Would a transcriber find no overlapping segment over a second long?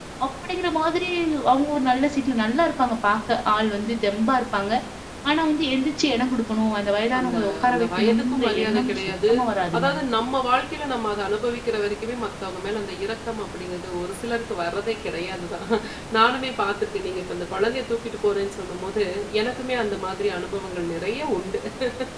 No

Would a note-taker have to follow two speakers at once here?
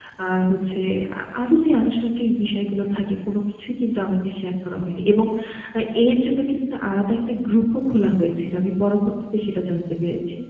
No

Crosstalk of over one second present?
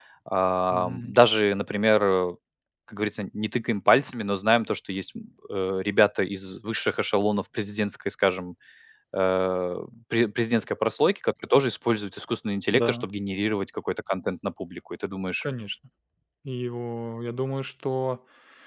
No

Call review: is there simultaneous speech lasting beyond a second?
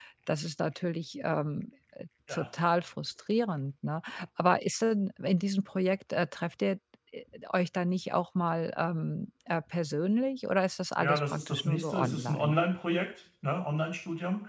Yes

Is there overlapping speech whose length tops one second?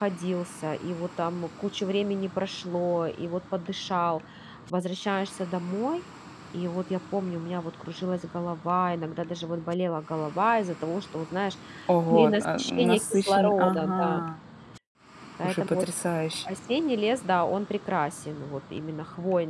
Yes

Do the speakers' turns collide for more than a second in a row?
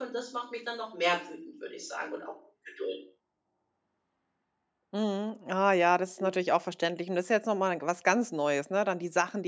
No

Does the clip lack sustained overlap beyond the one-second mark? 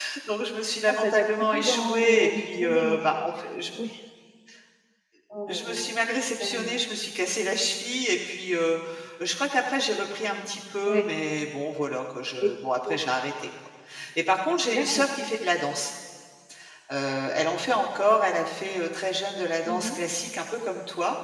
No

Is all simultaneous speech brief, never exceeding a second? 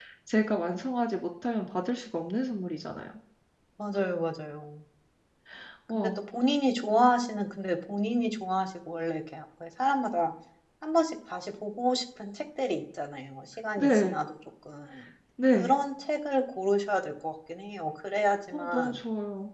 Yes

